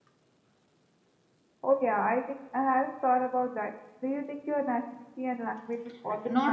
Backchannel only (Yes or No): No